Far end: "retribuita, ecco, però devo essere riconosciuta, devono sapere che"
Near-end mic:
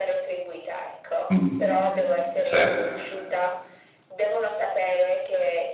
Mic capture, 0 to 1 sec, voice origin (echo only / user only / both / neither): echo only